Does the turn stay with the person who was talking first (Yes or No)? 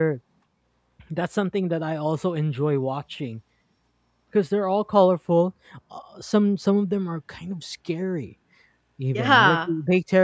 Yes